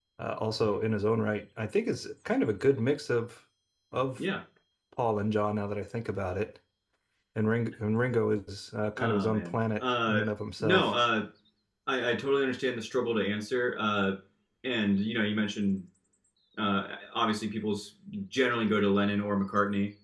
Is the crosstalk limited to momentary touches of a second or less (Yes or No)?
No